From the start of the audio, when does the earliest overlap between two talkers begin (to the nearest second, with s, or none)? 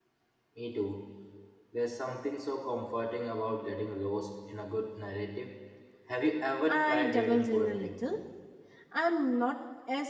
7 s